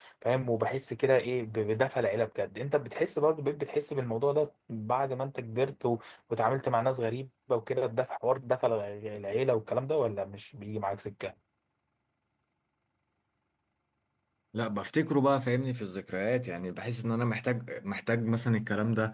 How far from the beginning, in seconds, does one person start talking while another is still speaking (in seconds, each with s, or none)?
none